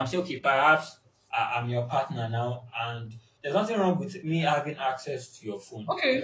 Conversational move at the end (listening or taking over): taking over